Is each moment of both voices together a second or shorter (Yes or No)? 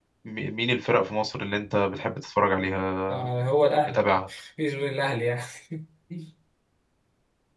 Yes